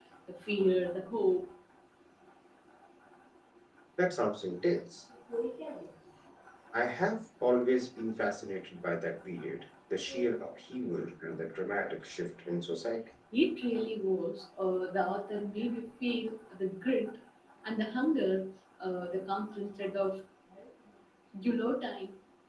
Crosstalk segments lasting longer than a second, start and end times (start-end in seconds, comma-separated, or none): none